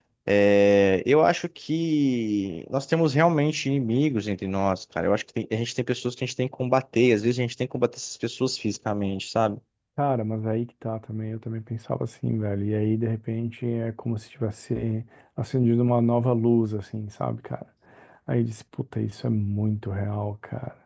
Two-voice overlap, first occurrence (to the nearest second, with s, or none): none